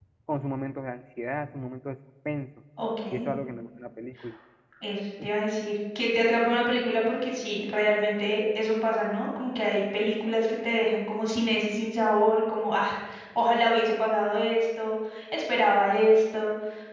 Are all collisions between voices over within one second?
Yes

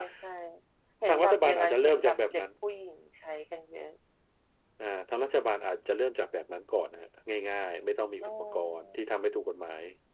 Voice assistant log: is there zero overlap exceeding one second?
No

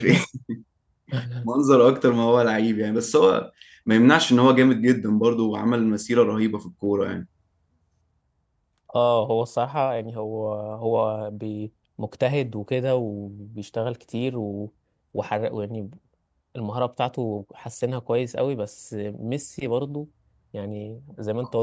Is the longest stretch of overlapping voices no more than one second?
Yes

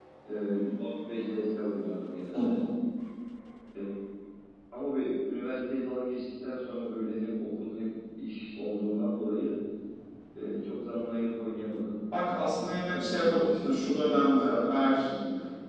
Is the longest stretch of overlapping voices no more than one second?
No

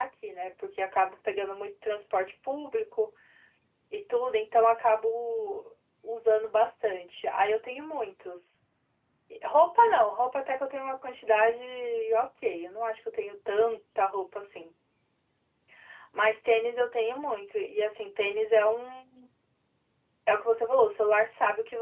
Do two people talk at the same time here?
No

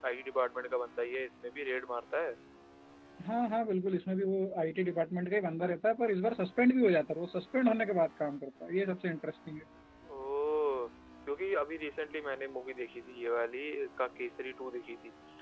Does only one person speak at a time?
Yes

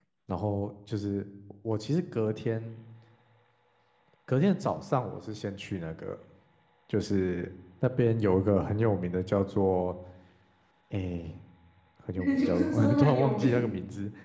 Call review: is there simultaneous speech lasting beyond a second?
Yes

